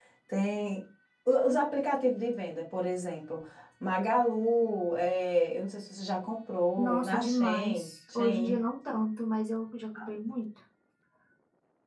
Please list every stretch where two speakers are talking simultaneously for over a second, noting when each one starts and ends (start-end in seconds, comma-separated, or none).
6.8-8.6